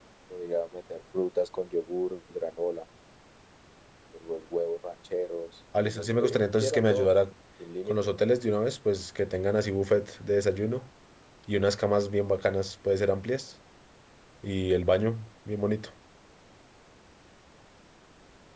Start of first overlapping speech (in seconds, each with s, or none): 5.9 s